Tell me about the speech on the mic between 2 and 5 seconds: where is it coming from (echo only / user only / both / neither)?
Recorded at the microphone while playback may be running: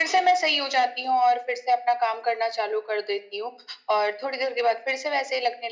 echo only